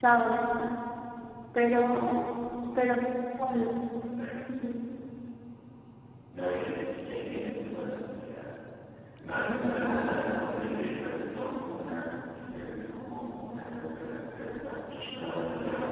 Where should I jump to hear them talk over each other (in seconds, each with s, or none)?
none